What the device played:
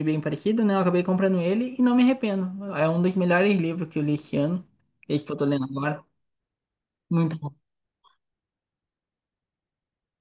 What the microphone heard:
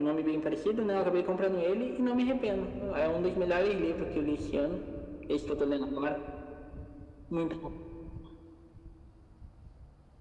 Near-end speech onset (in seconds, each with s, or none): none